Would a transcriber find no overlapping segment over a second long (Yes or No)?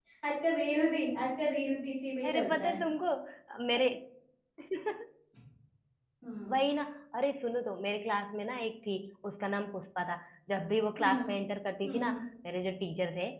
Yes